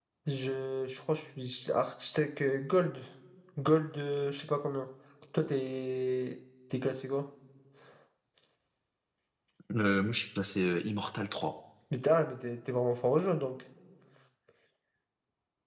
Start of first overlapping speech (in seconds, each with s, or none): none